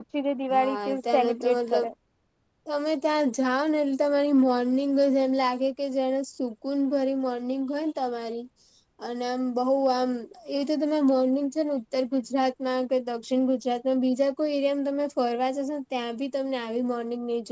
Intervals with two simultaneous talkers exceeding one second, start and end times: 0.5-1.9

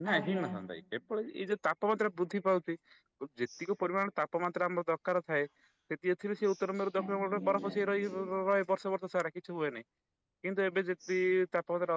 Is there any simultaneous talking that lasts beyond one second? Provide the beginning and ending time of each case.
7.0-8.2

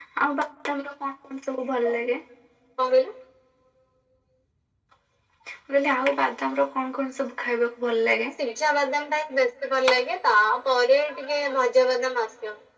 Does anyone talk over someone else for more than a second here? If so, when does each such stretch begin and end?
none

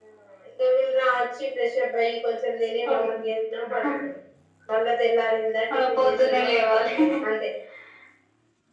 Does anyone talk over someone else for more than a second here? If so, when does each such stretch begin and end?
5.7-6.9

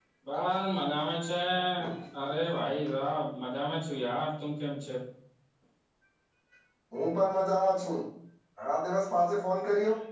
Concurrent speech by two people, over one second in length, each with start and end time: none

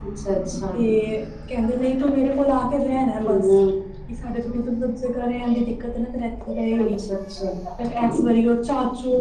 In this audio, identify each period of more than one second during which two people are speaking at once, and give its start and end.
none

